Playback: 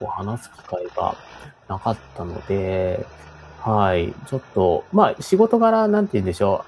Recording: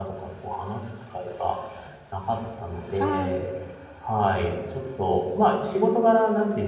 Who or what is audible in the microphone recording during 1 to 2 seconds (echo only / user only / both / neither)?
echo only